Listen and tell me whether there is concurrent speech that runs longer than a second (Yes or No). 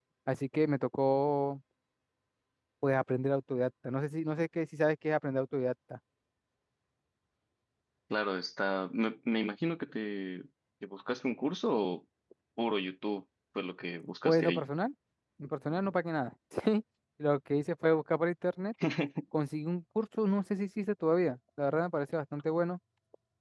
No